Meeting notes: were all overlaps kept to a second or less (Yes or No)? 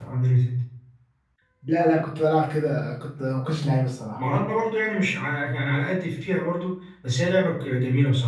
Yes